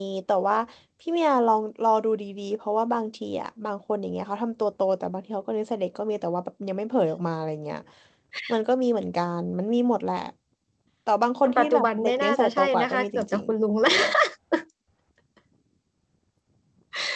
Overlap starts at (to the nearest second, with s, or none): 11 s